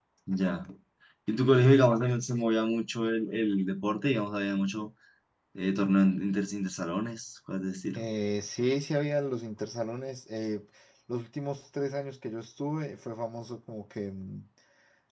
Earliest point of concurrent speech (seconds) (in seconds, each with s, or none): none